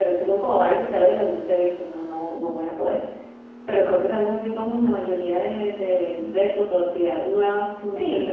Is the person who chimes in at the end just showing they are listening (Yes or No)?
No